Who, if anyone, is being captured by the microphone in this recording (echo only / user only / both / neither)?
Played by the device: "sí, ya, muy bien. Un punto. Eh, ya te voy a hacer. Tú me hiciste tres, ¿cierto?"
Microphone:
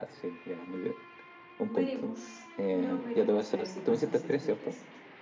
both